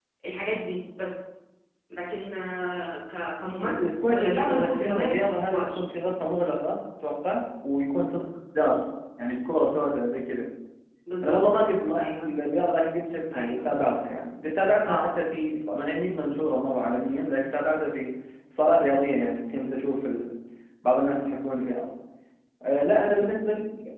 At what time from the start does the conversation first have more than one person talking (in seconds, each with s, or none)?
3.6 s